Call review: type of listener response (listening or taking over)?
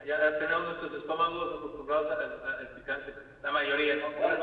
taking over